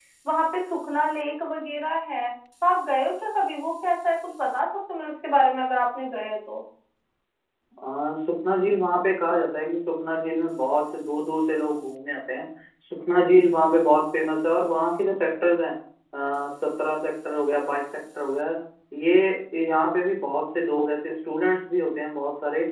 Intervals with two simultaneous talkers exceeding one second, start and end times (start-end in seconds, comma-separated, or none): none